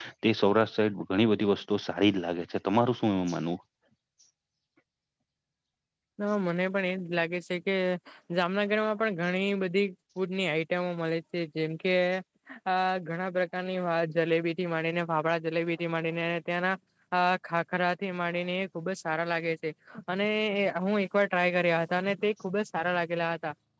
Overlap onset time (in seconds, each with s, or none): none